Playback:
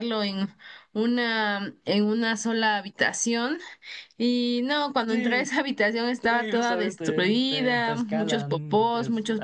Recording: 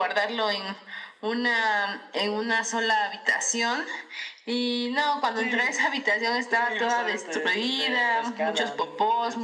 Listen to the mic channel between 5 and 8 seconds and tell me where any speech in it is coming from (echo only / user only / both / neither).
echo only